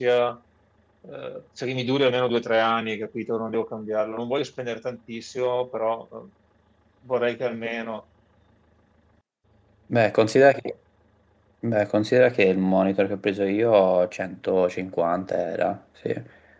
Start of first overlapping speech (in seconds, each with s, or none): none